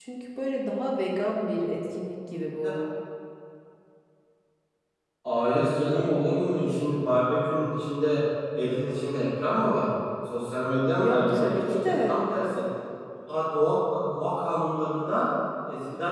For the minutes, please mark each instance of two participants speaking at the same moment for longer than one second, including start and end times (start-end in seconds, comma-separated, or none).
10.9-12.2